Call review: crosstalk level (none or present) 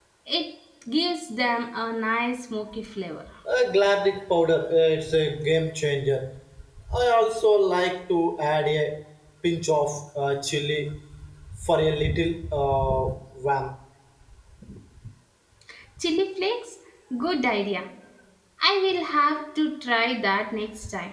none